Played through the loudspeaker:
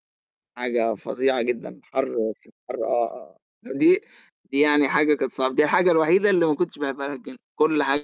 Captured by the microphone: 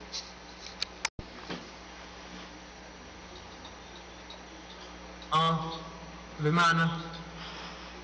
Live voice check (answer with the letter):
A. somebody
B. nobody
A